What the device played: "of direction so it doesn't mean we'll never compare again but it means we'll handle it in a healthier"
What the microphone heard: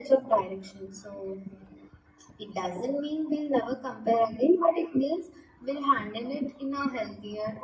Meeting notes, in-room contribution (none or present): none